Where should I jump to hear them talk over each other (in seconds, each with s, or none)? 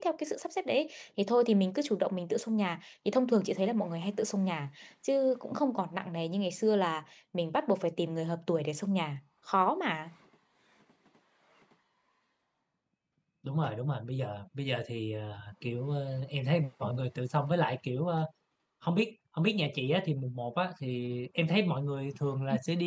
none